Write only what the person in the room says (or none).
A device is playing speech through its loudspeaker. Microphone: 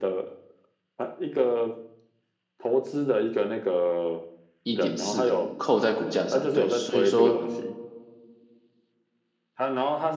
一点四扣在股价上，对，所以说